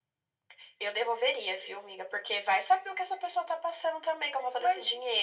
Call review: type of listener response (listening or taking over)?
taking over